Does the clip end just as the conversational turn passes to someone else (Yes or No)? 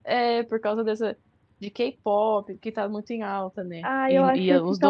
Yes